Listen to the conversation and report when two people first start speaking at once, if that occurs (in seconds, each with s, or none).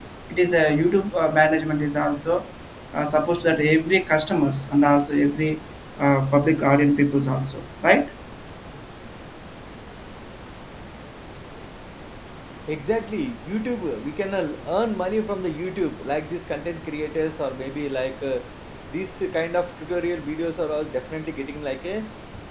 none